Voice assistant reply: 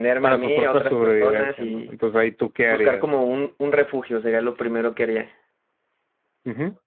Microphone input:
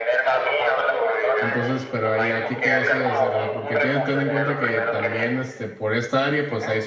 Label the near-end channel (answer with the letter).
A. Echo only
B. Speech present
B